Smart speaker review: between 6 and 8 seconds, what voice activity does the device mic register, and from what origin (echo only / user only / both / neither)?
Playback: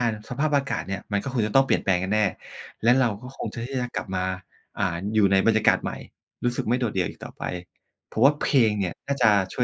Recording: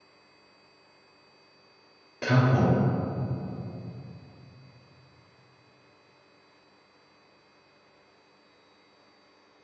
neither